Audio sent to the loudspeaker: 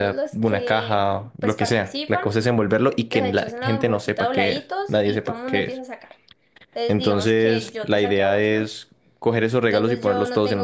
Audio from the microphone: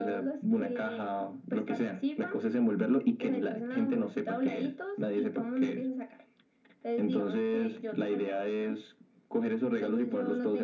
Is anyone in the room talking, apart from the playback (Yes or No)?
No